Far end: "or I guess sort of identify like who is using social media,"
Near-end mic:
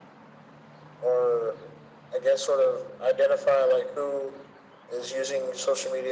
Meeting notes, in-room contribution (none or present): none